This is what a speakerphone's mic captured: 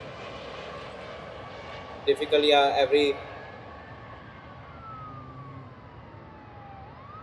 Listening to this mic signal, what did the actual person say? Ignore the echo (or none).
difficult, yeah, every